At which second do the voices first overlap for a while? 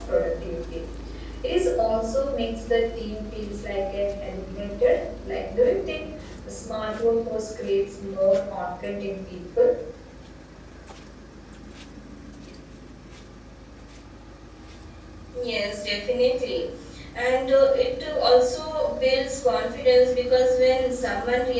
none

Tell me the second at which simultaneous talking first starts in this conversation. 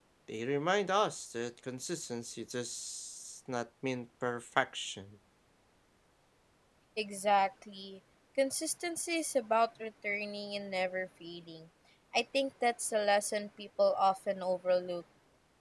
none

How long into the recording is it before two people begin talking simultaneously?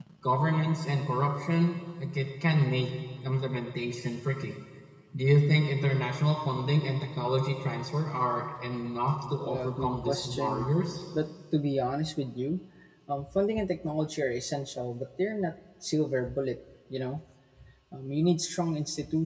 9 s

